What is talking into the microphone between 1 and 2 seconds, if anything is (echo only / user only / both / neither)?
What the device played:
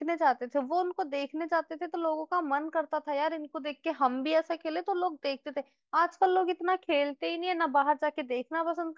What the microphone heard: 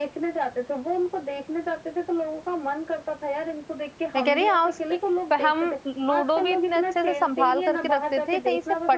echo only